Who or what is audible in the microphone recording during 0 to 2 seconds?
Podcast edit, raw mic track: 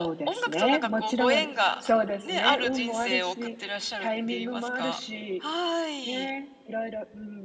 echo only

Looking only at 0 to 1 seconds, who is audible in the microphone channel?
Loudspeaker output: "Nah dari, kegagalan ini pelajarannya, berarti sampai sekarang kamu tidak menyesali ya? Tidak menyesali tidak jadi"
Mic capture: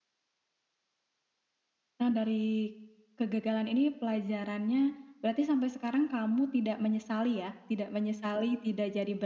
neither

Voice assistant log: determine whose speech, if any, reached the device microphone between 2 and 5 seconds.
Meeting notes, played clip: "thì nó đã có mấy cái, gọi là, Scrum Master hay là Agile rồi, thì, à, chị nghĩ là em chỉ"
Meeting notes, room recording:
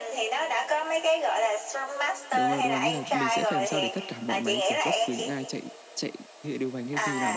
both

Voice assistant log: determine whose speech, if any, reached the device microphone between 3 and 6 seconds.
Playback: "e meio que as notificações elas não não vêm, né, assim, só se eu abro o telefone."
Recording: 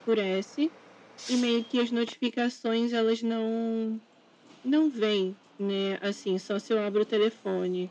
echo only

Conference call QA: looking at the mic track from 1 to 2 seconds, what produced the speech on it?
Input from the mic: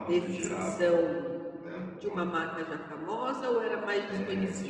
both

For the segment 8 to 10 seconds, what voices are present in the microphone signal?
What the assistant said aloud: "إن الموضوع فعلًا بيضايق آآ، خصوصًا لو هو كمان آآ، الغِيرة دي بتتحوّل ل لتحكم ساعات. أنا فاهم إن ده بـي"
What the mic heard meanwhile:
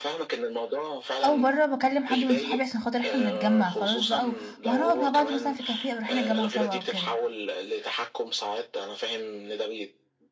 echo only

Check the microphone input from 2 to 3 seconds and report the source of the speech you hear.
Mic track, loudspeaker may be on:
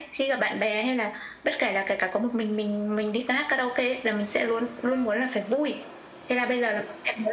echo only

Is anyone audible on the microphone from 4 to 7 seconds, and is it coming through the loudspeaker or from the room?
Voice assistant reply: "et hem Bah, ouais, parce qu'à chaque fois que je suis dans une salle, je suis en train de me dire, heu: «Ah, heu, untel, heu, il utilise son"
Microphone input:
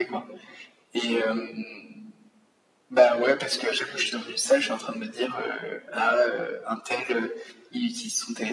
echo only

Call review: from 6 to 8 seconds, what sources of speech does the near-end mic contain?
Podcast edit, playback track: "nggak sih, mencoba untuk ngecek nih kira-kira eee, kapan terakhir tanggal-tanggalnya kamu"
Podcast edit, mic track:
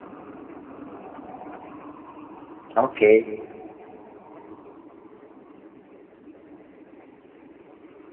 neither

